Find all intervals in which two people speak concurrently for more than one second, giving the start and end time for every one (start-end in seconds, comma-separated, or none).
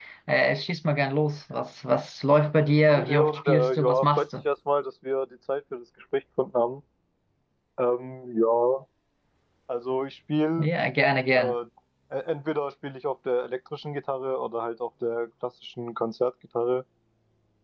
2.9-4.3